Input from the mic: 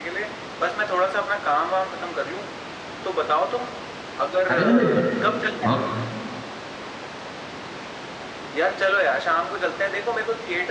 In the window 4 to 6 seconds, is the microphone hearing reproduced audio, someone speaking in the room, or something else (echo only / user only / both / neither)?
both